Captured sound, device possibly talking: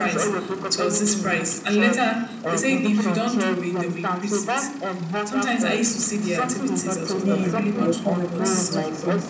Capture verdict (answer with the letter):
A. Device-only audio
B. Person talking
B